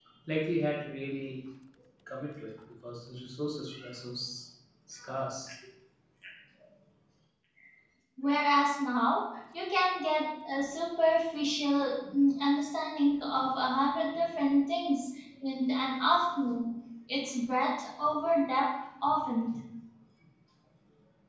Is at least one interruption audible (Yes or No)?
No